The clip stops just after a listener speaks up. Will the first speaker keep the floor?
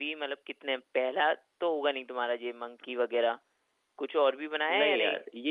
No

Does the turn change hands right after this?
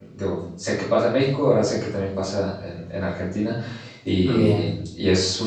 No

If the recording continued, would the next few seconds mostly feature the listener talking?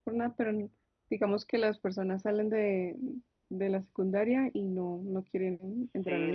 Yes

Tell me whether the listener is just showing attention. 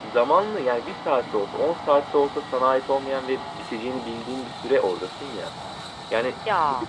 Yes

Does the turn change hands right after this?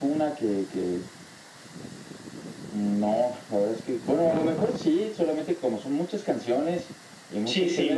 No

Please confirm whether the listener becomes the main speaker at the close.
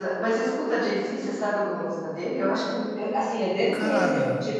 No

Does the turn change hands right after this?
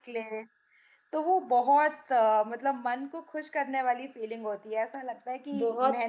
Yes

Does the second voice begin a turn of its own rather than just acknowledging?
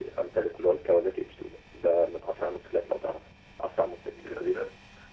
No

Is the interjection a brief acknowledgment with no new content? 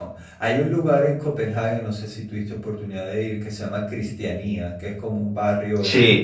Yes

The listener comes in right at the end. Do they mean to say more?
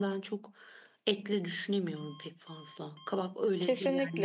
Yes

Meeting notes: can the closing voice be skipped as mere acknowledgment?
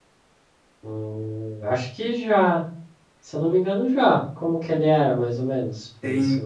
No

